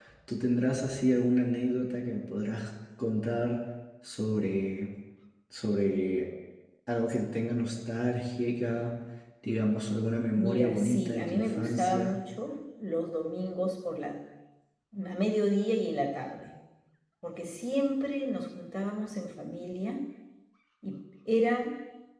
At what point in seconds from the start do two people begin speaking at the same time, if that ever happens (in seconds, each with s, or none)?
10.3 s